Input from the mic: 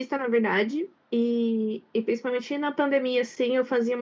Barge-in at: none

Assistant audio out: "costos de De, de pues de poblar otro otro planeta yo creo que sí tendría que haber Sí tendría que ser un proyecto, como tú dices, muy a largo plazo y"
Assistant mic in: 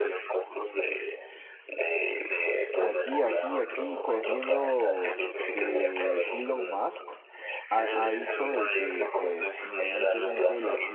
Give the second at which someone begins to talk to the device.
3 s

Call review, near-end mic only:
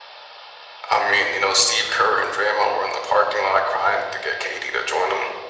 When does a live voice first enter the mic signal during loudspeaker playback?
none

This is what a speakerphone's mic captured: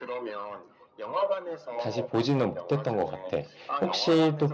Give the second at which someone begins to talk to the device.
2 s

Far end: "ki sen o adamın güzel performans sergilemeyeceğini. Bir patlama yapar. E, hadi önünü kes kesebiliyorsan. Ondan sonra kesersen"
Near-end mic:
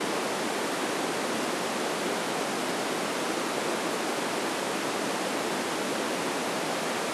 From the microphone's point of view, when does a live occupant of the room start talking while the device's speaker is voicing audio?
none

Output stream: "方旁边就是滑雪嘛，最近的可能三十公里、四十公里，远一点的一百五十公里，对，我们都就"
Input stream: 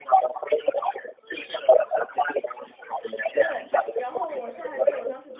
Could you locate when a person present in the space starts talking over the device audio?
3 s

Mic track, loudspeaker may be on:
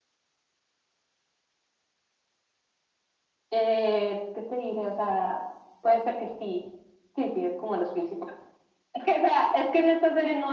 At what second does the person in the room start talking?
none

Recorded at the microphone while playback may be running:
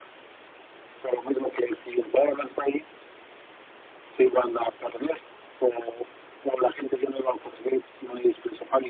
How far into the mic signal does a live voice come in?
none

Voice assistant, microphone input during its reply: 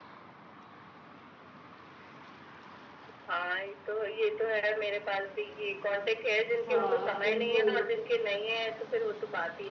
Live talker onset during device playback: 7 s

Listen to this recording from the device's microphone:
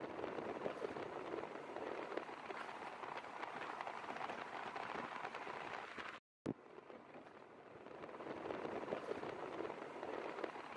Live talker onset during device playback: none

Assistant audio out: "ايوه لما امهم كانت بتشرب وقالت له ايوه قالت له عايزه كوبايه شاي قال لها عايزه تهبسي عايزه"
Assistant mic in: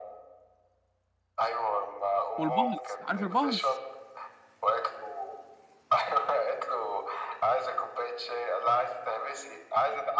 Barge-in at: 2 s

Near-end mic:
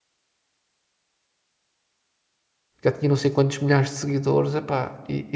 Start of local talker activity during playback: 3 s

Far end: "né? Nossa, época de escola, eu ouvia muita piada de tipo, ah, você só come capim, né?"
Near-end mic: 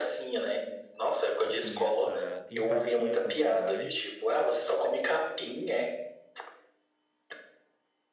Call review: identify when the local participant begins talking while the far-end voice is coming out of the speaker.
1 s

